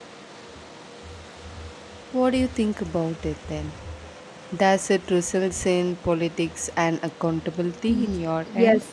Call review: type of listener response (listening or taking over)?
taking over